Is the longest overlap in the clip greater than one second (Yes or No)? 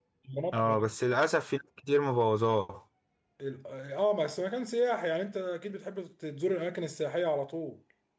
No